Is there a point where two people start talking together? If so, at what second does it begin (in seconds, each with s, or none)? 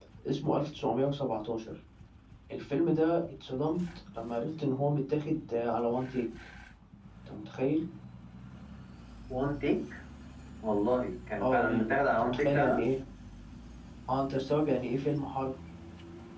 11.3 s